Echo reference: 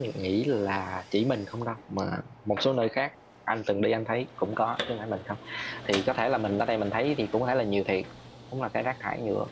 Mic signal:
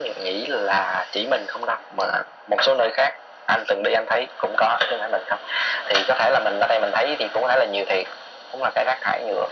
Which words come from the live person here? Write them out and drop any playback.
none

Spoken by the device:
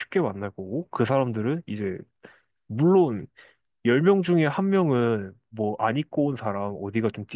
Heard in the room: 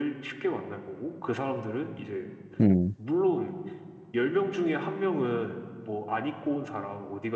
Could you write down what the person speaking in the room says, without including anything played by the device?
음,

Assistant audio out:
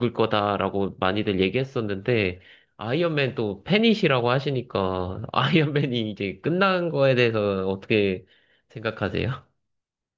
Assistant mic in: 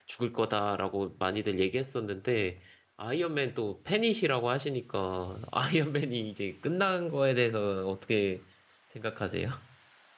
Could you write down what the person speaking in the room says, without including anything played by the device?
none

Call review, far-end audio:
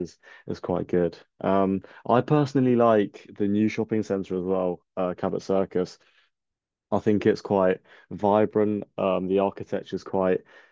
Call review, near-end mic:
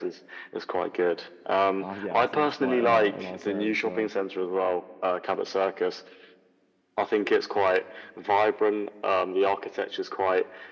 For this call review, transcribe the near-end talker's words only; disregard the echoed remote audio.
uh, yeah, I think it's quite a, a nice area for a,

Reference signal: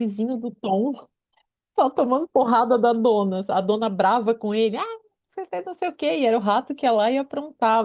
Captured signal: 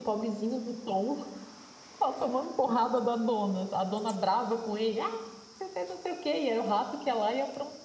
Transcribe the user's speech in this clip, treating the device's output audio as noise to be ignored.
none

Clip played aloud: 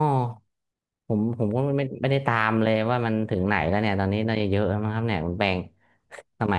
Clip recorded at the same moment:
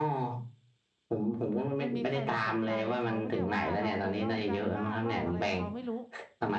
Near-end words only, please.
มันมีใครมาใส่ไฟเขาเนี่ยว่าเราไปลอกการบ้านลอกอะไรเขาไม่รู้

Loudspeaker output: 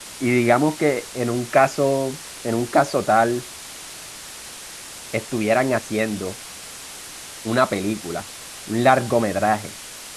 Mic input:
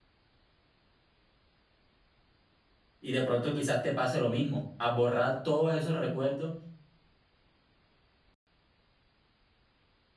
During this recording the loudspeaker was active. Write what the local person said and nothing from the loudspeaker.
Y de pronto quizás te pase lo mismo, a borrar todos esos recuerdos,

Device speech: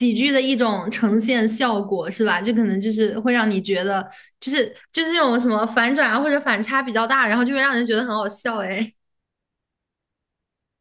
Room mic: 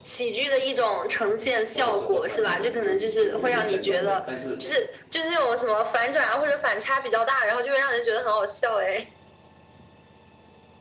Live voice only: 或者是动漫里的设顶就有一点像洋人，但是

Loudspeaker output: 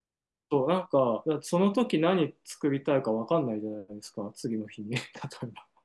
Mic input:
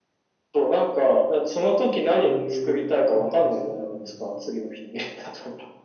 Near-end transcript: こういう組み合わせになるんですか

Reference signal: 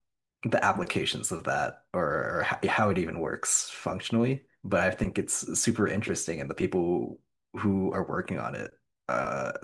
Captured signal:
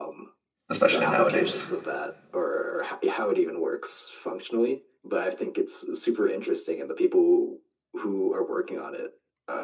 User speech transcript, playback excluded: especially nowadays.

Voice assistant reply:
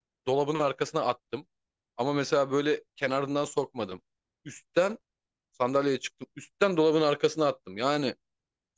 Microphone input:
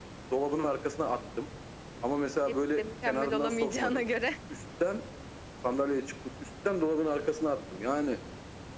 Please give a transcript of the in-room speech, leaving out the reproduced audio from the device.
hepsi de mükemmel olamayacağına göre

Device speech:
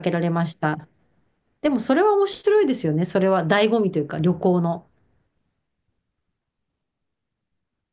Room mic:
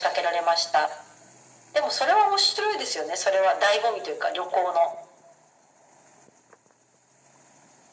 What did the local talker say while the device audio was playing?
none

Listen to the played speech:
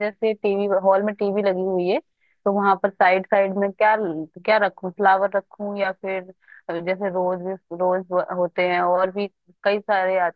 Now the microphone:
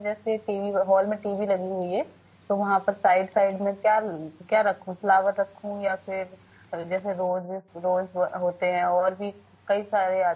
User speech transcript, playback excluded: none

